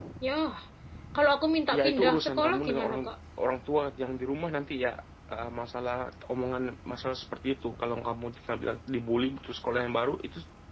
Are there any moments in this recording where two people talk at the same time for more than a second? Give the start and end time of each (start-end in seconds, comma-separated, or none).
1.8-3.0